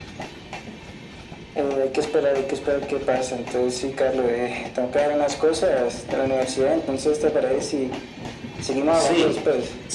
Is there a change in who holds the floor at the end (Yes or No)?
Yes